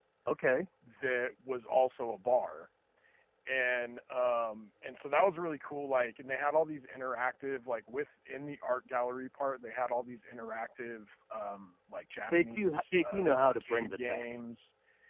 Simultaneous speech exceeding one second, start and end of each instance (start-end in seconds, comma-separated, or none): 12.3-14.2